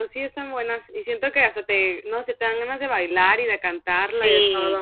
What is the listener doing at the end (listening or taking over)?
taking over